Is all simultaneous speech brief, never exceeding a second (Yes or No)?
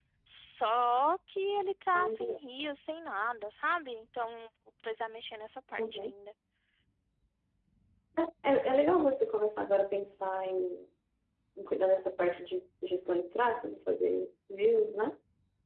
Yes